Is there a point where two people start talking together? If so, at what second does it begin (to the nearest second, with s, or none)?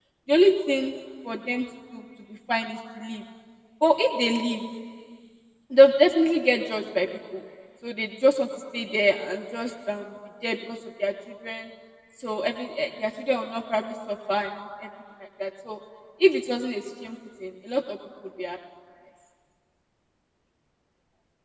none